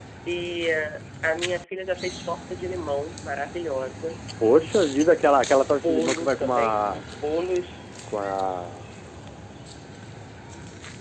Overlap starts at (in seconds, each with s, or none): 5.7 s